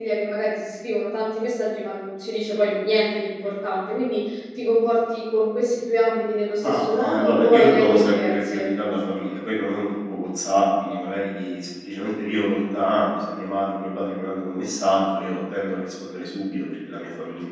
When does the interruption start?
6.6 s

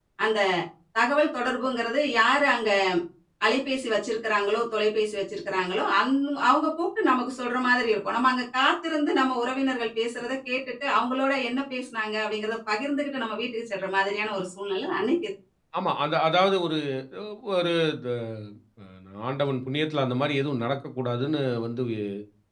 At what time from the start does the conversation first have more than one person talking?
none

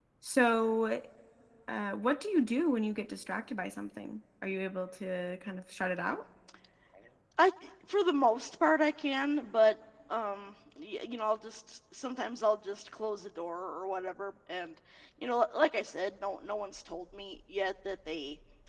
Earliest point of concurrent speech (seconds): none

